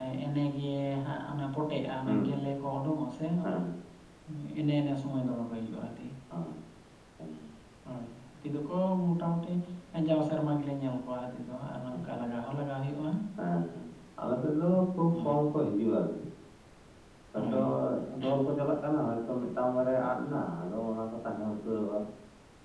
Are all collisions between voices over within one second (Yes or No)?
Yes